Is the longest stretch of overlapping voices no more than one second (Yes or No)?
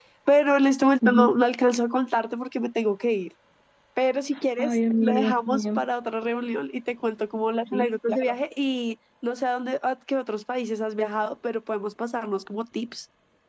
No